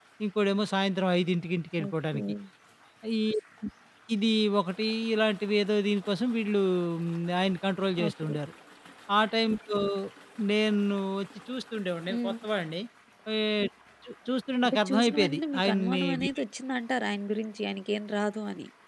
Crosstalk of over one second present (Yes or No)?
Yes